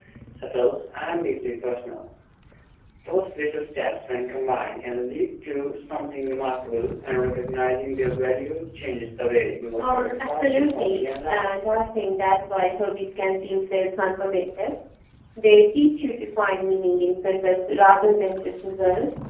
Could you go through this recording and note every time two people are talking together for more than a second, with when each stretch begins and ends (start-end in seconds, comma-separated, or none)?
9.8-11.6